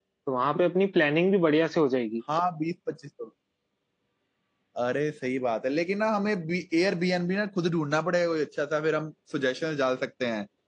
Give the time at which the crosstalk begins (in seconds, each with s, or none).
none